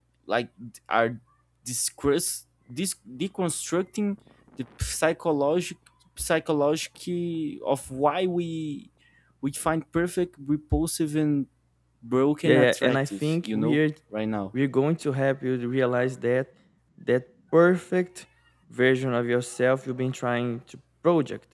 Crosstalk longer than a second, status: present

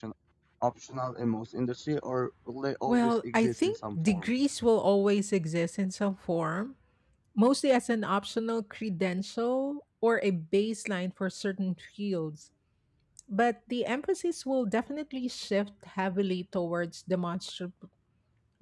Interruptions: present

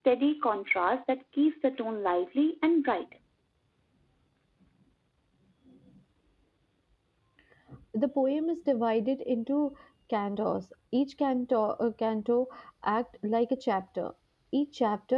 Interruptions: none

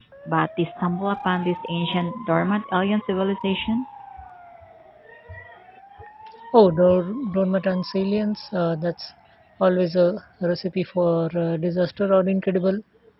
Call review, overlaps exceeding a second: none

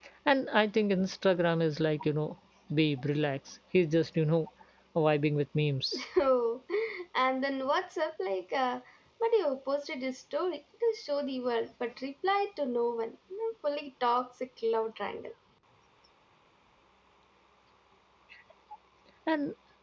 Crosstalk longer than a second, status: none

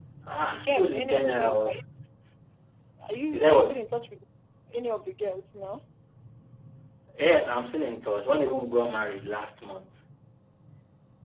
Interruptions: present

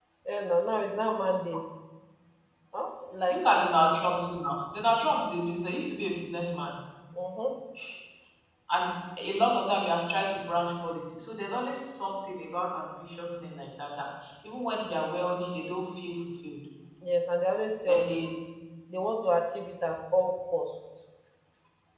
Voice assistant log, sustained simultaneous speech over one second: none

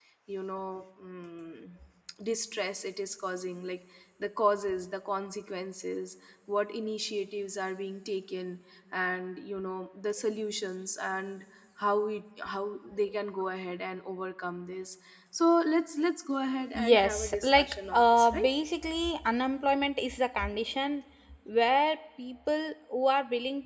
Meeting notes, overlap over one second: present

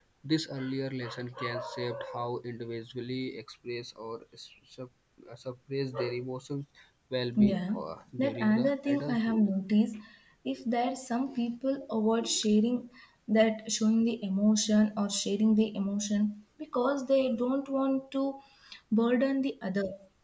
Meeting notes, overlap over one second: present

